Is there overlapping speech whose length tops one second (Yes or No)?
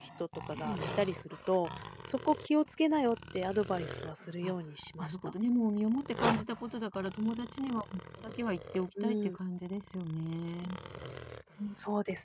No